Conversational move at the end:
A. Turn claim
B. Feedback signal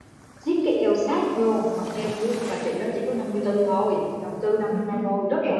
A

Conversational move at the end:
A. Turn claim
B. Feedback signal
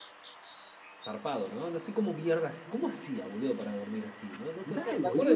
B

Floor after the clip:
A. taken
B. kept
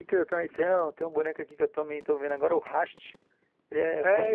A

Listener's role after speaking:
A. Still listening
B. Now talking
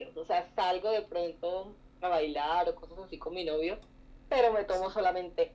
A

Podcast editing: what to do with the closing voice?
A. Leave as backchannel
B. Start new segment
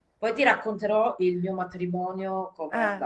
B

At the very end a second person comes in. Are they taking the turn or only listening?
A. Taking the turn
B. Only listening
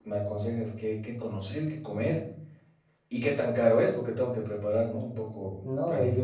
A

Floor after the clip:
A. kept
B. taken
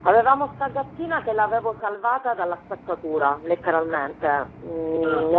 A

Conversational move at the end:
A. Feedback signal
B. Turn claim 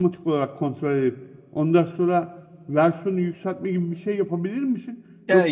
A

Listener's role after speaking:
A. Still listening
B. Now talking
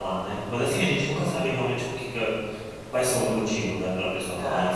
B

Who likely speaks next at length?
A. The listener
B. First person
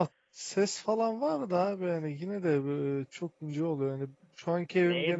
A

